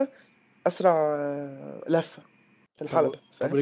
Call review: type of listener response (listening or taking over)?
taking over